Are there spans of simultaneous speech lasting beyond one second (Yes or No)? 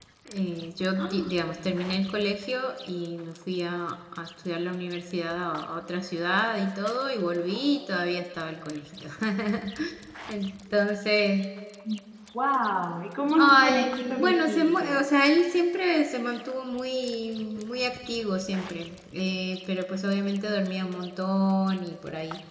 Yes